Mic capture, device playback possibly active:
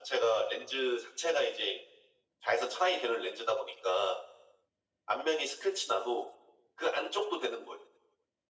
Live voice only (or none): none